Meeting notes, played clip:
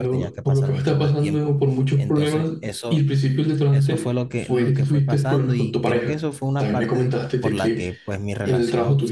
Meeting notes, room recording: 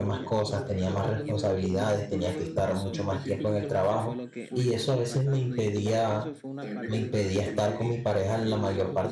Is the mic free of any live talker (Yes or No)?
No